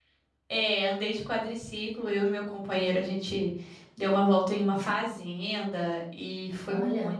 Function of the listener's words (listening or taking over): listening